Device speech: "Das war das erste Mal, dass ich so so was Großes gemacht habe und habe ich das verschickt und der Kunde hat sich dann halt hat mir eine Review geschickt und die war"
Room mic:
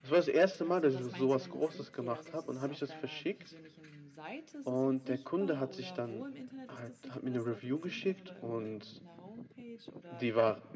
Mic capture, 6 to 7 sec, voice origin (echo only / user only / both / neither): both